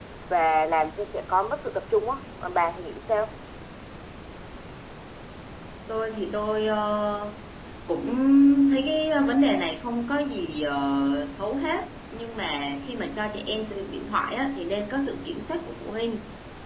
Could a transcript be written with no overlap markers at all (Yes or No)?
Yes